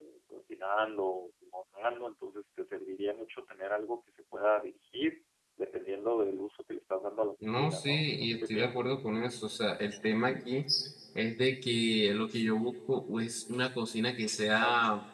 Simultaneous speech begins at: 7.4 s

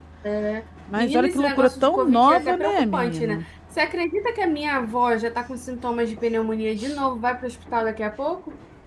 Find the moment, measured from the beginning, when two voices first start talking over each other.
1.0 s

